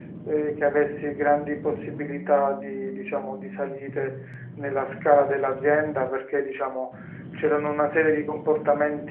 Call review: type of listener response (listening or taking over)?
listening